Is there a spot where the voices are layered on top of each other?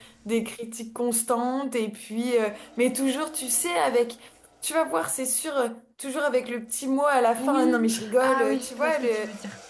Yes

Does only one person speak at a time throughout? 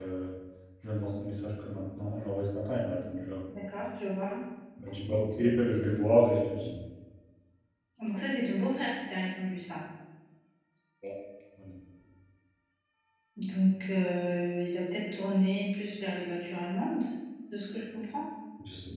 Yes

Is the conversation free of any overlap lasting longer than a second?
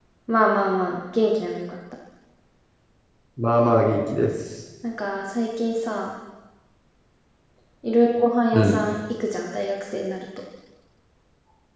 Yes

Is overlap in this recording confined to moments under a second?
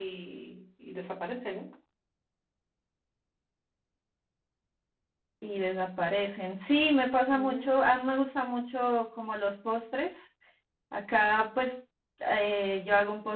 Yes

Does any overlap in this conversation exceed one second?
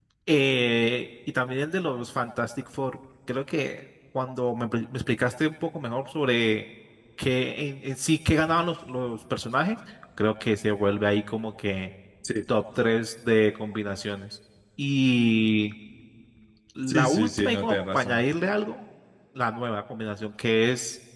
Yes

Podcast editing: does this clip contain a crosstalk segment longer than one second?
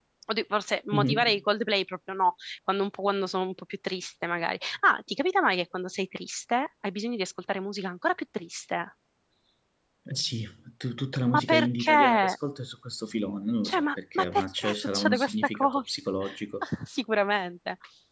Yes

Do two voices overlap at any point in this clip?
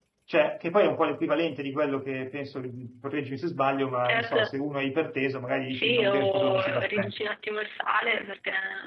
Yes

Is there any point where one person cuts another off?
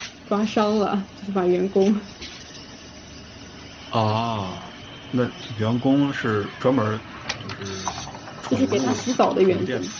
Yes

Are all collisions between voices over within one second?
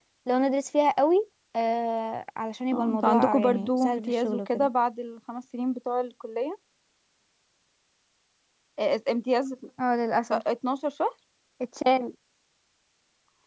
No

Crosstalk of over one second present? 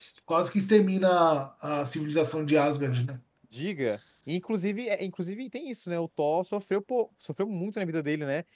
No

